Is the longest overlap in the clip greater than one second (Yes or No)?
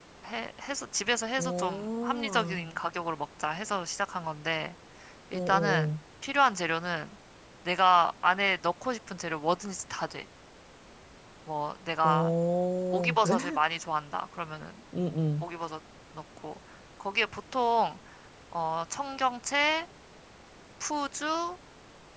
Yes